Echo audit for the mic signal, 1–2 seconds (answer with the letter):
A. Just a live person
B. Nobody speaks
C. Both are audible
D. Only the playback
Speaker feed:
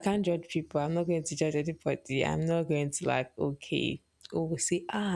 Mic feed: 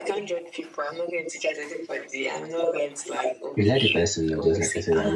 D